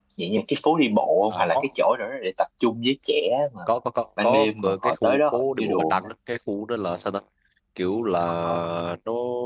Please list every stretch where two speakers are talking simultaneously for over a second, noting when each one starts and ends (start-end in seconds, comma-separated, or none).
4.2-6.1